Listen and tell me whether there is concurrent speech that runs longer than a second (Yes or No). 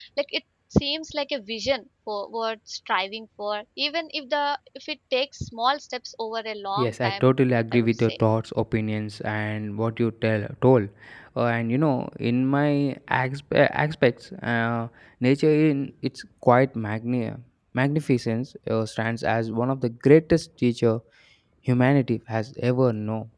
No